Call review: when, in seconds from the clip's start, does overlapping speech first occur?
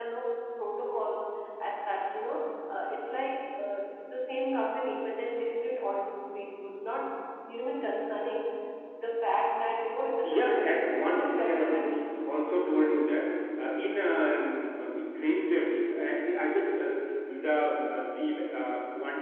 10.2 s

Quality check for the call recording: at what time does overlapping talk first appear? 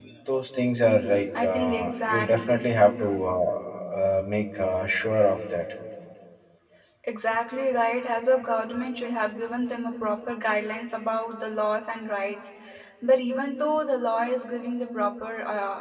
1.3 s

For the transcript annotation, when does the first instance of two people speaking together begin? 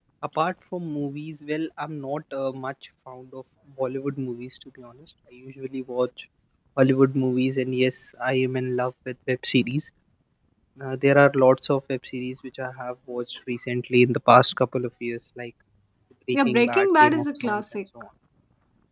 16.3 s

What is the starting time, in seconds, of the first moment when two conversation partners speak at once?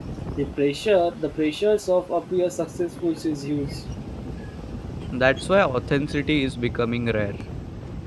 none

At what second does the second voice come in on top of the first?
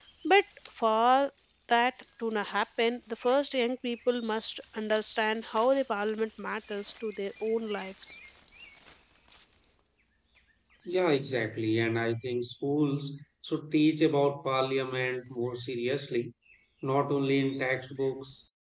none

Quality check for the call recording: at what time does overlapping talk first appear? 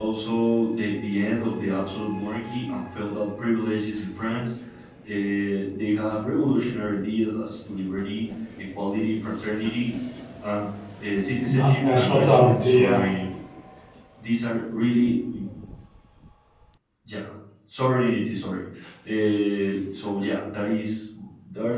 11.4 s

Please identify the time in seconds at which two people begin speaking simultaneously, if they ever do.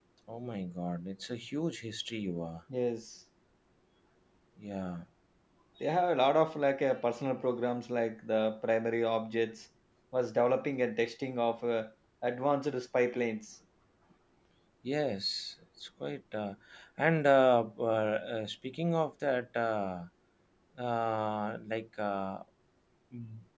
none

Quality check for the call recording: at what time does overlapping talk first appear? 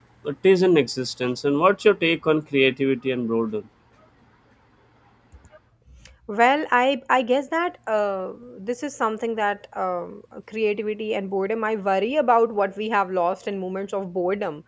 none

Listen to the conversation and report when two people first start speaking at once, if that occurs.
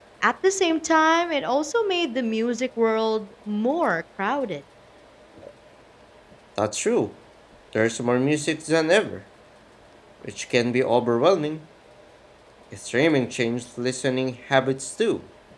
none

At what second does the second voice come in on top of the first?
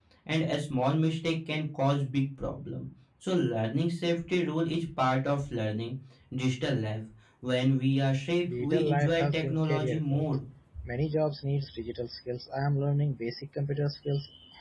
8.5 s

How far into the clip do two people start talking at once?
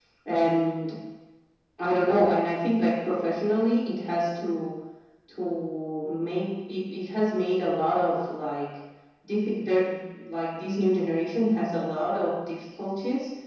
none

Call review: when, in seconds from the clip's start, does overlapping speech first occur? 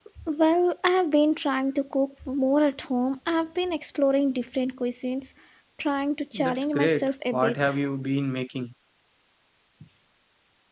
6.3 s

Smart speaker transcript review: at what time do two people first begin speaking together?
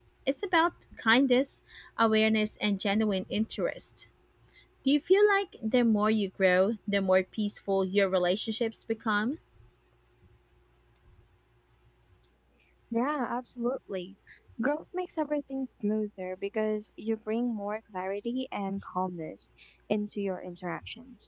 none

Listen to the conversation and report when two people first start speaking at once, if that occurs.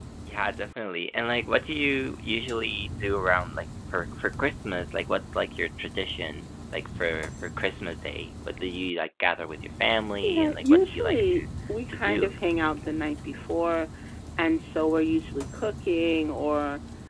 10.2 s

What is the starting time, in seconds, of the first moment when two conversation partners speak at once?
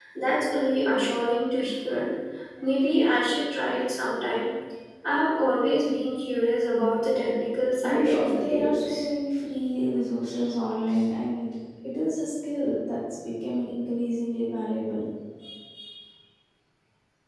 7.8 s

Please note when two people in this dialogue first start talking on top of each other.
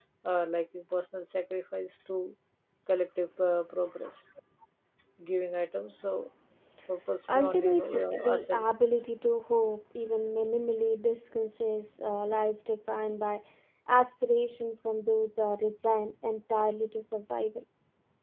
7.3 s

